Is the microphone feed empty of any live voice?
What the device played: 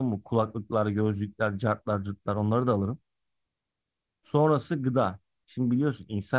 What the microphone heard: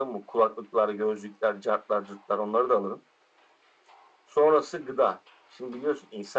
Yes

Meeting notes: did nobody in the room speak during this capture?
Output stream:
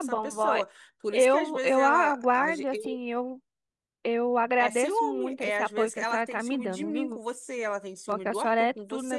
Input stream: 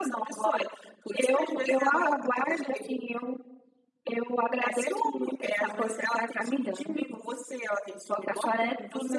Yes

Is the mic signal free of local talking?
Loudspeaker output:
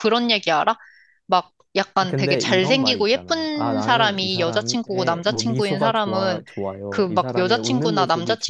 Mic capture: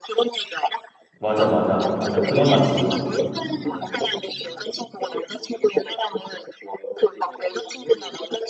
No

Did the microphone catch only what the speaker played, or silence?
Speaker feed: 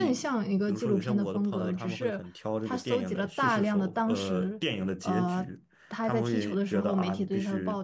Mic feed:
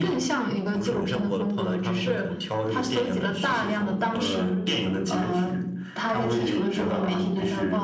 Yes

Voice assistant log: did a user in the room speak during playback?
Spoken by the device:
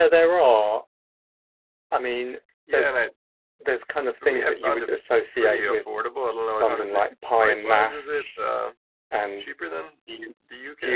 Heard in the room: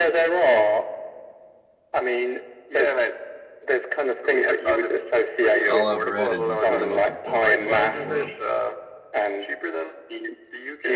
Yes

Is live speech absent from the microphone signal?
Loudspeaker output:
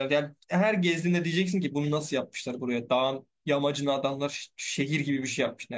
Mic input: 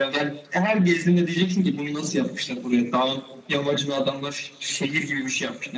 Yes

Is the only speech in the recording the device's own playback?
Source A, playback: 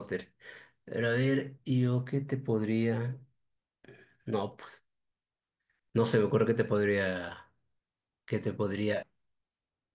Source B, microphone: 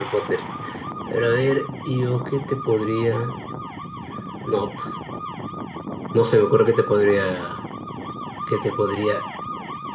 Yes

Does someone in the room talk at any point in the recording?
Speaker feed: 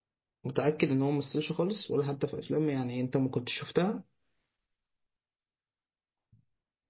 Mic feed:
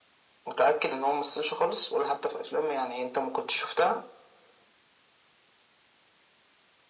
No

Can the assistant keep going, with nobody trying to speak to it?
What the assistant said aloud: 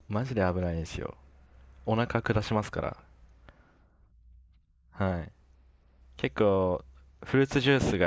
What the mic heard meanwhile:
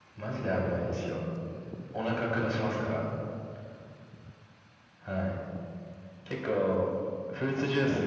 Yes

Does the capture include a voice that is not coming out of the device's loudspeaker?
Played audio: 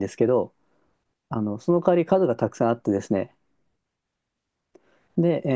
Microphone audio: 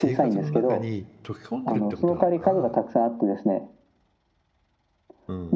Yes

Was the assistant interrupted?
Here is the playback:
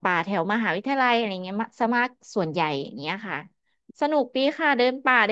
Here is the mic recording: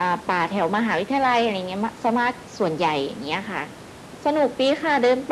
No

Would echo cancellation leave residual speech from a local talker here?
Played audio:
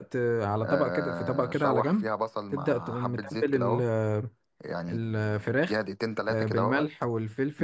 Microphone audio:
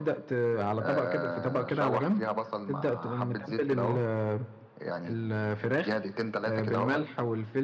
No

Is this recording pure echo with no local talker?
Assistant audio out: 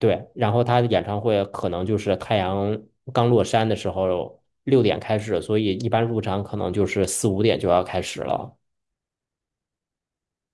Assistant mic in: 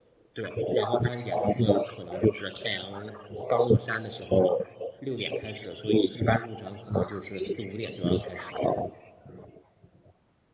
Yes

